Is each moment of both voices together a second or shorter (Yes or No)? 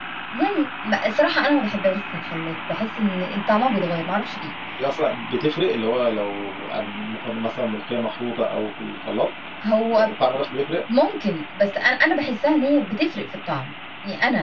Yes